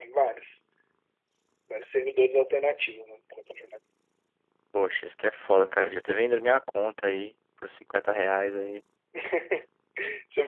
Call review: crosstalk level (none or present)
none